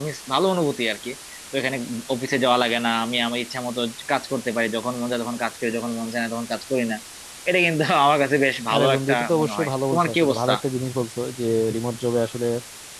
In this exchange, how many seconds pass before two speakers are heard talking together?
8.7 s

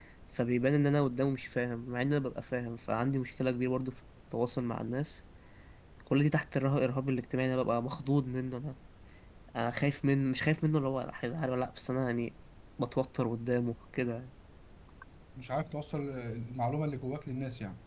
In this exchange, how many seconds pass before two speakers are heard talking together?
none

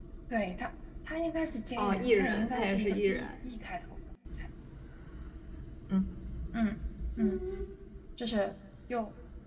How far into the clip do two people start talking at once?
1.8 s

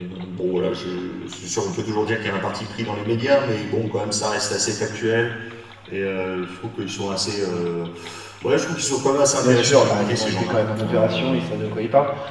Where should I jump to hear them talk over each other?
9.4 s

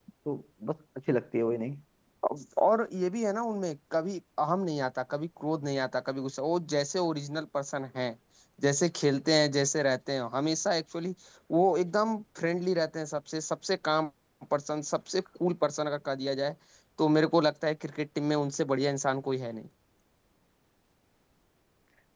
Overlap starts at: none

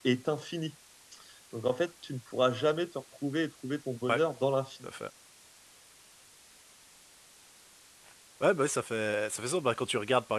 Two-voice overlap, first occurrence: none

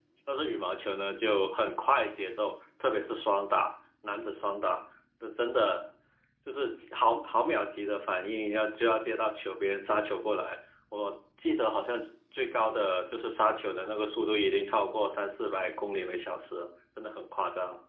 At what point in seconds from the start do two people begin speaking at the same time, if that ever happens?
none

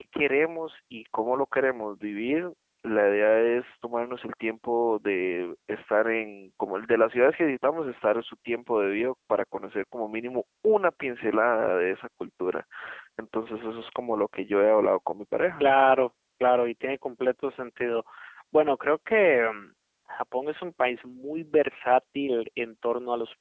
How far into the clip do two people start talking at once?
none

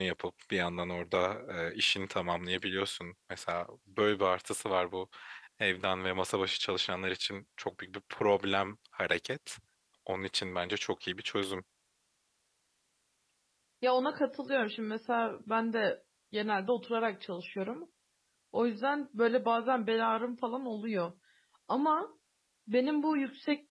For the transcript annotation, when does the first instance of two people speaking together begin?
none

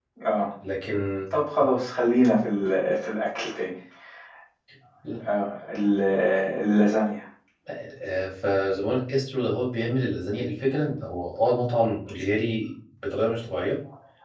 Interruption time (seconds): none

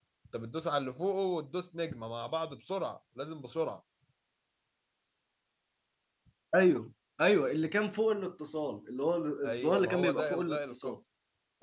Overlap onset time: 9.4 s

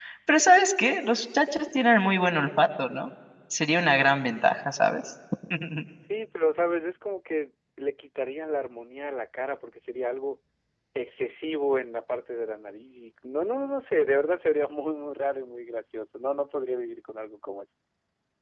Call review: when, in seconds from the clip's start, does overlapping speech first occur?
none

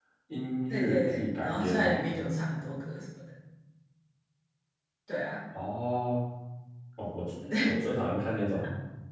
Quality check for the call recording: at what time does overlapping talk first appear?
0.7 s

